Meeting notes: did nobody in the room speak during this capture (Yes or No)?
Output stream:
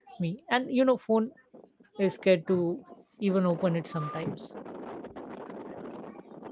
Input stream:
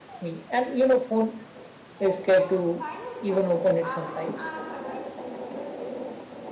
No